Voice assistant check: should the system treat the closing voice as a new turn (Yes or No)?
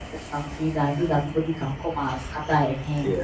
Yes